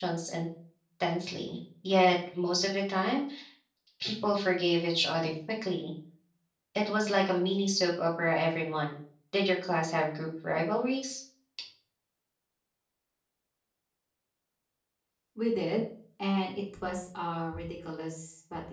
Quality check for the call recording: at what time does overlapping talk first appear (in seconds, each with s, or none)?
none